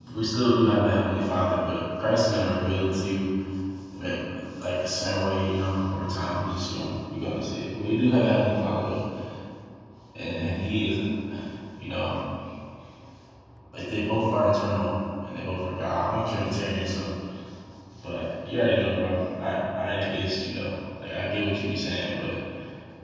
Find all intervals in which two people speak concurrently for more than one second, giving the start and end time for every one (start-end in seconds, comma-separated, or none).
none